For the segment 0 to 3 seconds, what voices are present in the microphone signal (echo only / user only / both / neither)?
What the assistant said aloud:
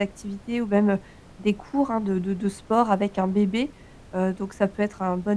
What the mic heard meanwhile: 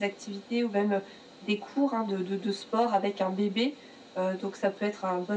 echo only